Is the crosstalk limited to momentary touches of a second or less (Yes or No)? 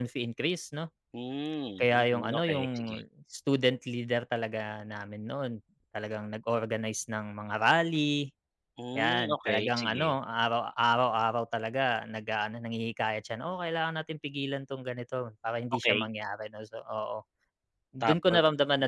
No